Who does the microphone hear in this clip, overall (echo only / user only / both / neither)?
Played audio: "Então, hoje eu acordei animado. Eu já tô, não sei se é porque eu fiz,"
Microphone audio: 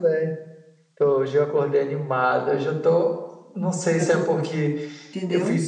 both